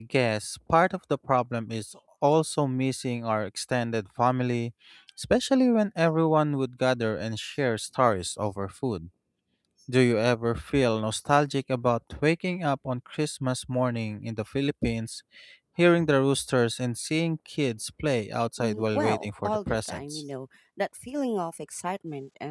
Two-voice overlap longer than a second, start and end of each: 18.6-20.2

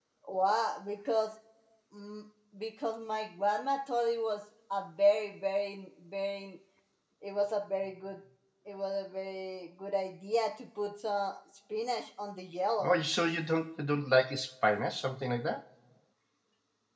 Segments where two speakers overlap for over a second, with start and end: none

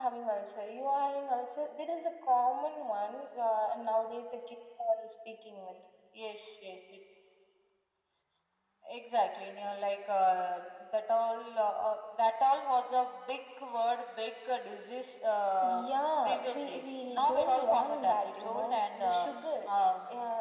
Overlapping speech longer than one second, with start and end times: 16.2-19.3

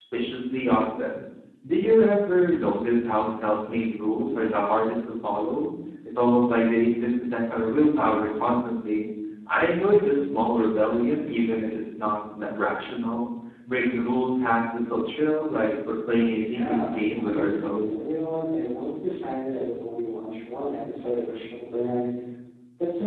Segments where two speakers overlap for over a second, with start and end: 16.4-18.0

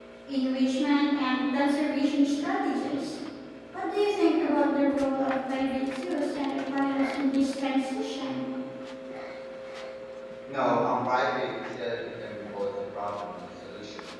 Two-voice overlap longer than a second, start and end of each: none

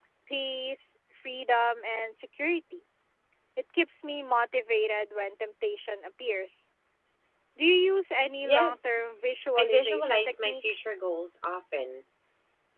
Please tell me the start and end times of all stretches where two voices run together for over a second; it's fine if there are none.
9.6-10.8

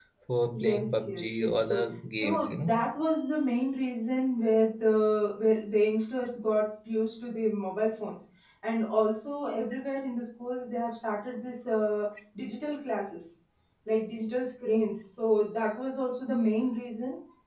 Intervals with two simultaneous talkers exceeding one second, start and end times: 0.5-2.7

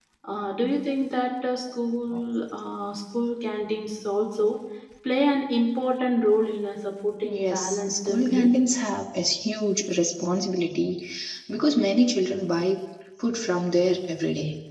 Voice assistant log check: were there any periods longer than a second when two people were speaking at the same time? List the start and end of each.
7.3-8.6

